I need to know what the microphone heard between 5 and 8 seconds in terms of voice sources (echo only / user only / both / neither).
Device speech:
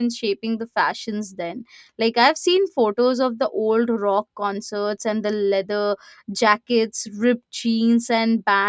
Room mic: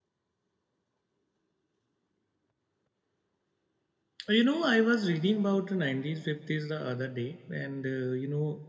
user only